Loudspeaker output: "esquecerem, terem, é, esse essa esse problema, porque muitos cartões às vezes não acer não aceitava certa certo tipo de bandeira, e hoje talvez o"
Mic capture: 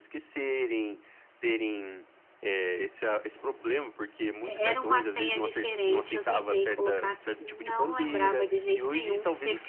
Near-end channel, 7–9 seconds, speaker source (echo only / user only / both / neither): both